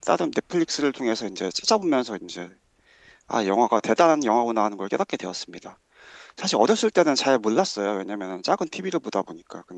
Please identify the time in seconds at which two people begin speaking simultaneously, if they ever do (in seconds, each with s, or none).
none